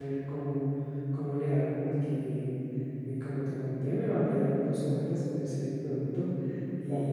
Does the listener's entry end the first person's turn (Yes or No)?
No